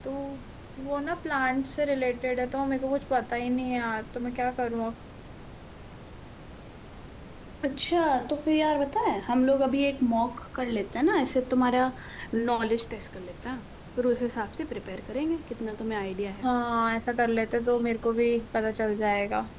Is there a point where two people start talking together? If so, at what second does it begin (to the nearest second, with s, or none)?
none